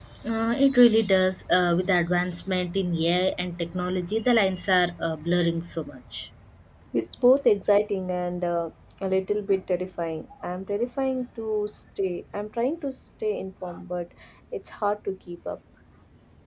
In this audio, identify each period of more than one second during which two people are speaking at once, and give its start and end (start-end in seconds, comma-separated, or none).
none